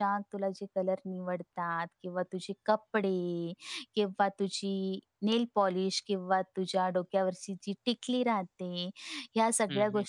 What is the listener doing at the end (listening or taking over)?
listening